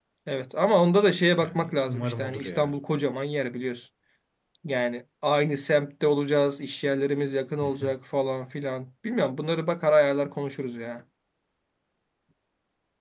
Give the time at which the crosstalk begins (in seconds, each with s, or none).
1.4 s